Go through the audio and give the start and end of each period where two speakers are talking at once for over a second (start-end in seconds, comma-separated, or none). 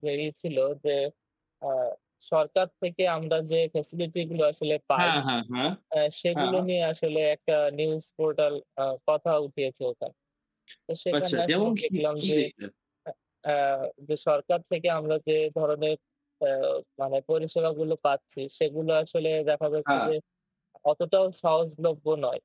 11.2-12.4